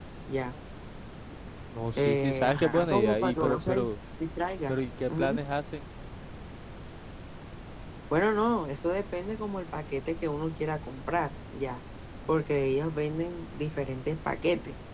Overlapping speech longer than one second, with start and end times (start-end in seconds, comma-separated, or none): 1.9-3.9